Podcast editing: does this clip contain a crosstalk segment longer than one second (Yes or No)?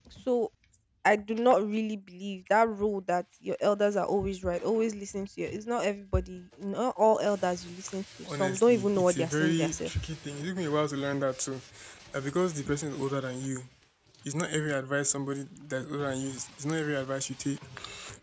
Yes